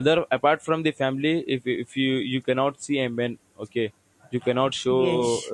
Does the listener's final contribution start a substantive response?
Yes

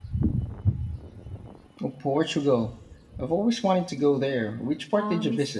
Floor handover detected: Yes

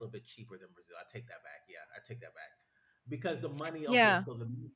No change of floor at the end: Yes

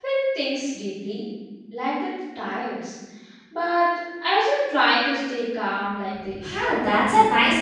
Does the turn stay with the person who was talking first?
No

